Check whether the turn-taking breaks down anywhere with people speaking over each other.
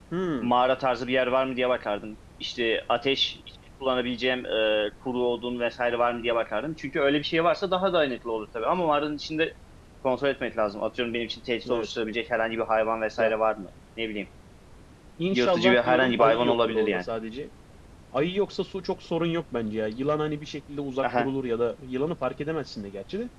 Yes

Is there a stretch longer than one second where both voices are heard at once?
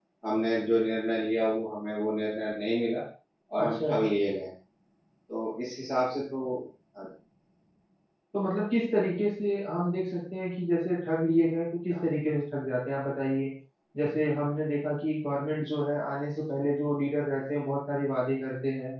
No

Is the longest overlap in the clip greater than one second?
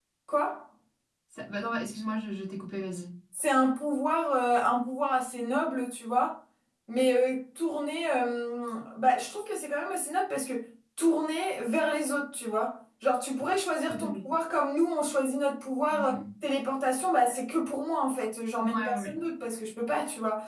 No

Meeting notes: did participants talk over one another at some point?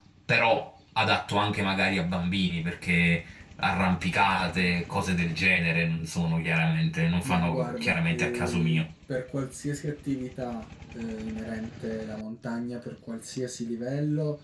Yes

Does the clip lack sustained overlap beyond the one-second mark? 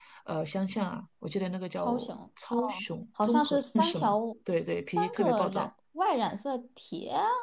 No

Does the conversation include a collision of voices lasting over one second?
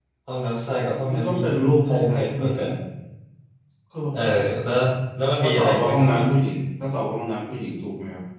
Yes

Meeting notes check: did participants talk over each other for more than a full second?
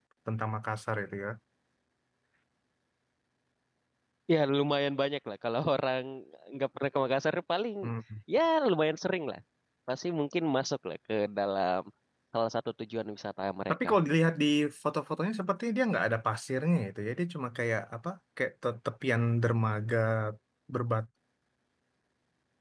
No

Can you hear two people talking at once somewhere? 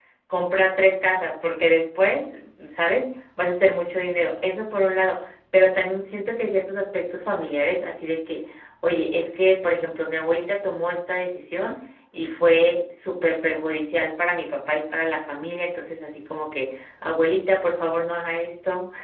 No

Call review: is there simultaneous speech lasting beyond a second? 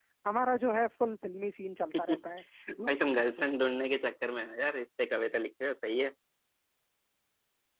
No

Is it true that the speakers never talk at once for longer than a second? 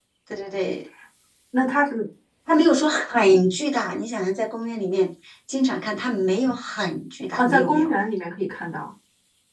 Yes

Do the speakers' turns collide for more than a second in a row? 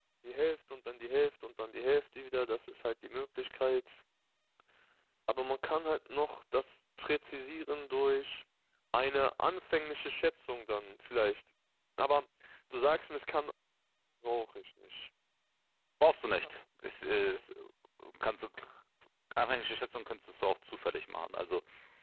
No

